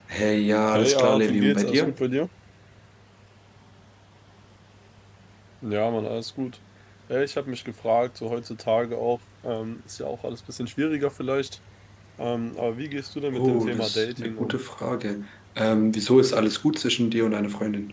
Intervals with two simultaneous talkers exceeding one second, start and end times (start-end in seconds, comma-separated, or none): 0.7-2.0, 13.3-14.6